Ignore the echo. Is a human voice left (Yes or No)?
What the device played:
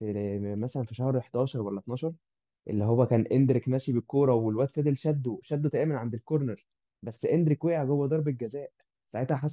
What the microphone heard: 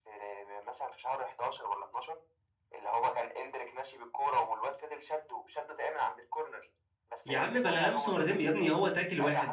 Yes